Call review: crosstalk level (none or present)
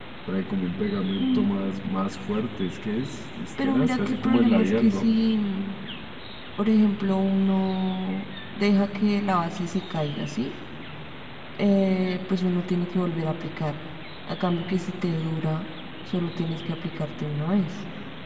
present